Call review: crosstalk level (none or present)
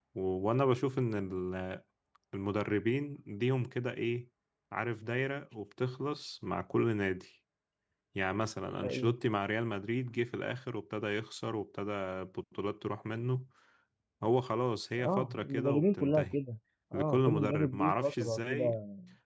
present